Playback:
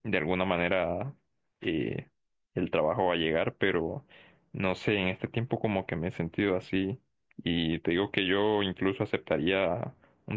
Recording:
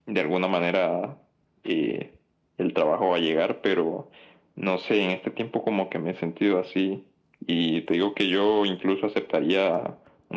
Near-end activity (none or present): none